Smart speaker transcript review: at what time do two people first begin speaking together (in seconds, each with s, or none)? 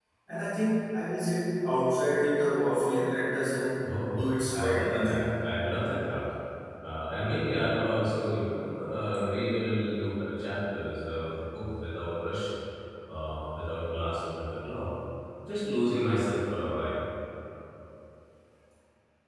3.8 s